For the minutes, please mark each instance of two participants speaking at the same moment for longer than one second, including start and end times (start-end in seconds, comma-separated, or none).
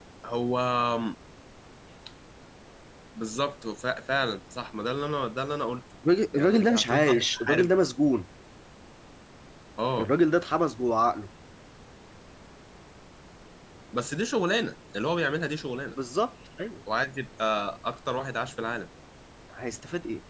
6.3-7.7